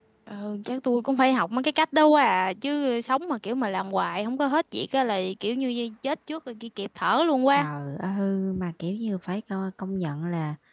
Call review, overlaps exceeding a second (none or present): none